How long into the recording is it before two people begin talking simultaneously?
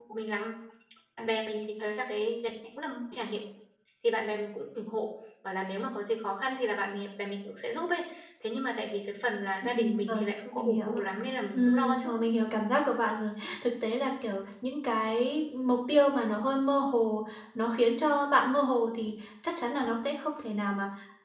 9.7 s

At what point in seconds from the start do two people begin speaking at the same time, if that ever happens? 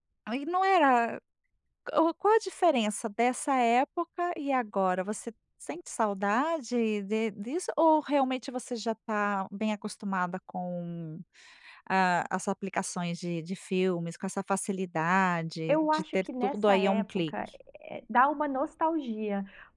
15.7 s

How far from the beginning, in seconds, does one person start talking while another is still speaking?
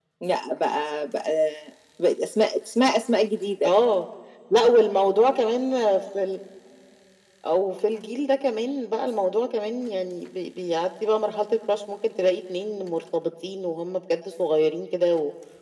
none

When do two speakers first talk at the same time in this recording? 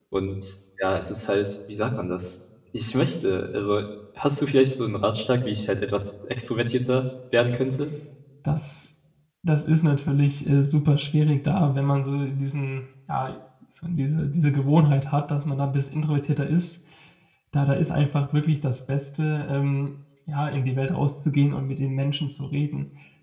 none

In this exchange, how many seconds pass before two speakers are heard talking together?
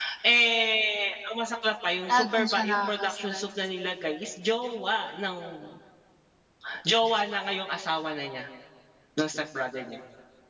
2.1 s

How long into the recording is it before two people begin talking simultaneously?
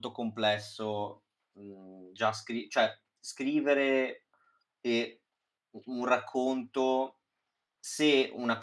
none

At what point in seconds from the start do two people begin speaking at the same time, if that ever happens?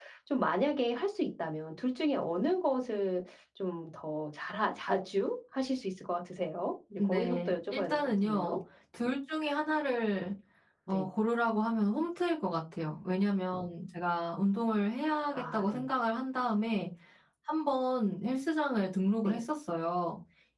7.0 s

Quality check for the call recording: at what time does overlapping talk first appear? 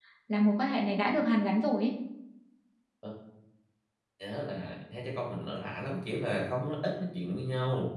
none

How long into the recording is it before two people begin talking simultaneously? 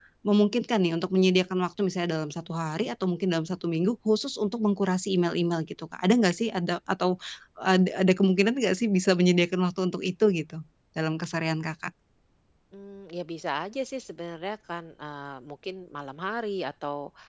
none

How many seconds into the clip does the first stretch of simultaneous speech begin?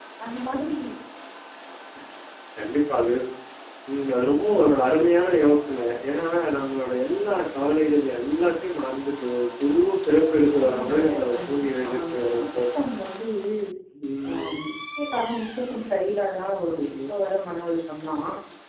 10.6 s

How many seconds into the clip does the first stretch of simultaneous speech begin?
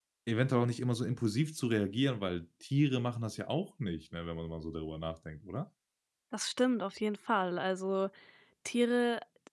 none

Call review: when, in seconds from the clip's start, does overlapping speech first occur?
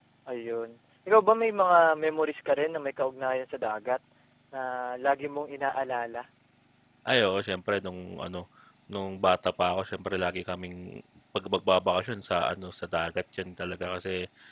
none

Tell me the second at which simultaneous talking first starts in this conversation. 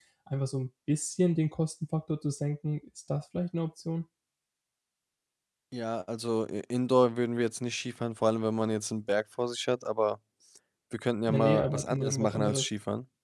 11.3 s

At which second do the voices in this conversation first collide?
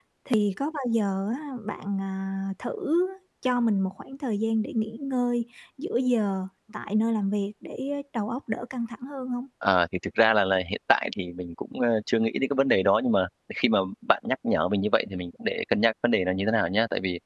none

